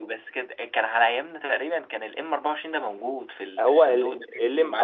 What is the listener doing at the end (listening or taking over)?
taking over